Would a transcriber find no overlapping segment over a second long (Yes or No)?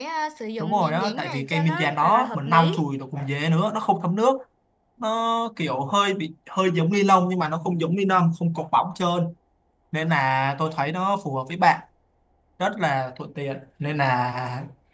No